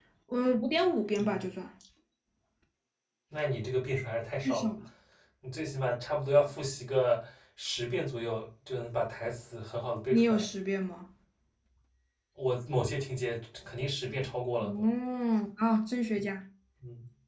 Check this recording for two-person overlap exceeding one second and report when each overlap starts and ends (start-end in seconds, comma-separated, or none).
none